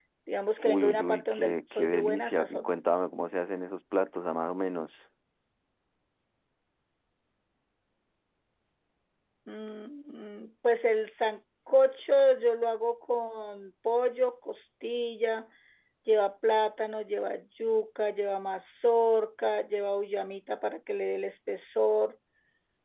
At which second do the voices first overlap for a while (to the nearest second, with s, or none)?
1 s